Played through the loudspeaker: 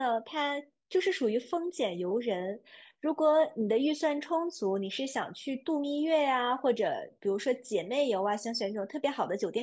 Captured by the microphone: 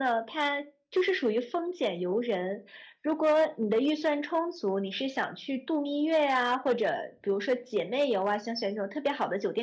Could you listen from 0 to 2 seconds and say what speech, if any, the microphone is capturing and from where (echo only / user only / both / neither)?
echo only